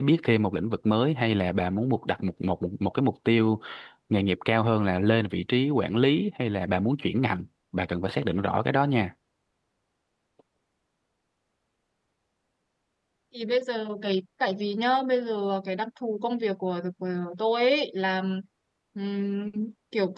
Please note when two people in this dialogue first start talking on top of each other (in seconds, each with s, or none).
none